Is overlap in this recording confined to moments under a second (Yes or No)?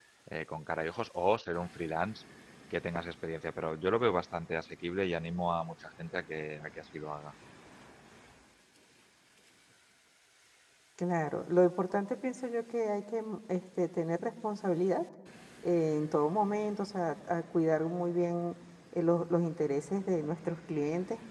Yes